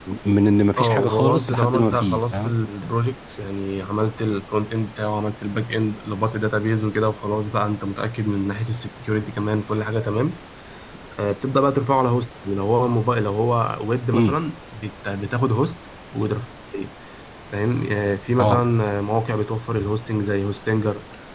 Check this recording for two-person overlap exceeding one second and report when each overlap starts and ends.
0.8-2.5

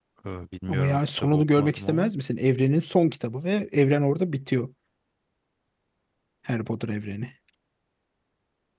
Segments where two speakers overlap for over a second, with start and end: 0.7-2.1

